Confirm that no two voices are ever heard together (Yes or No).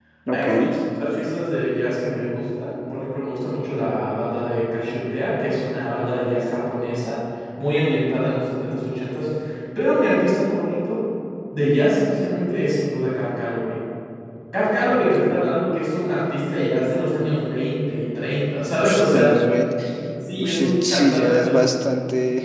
No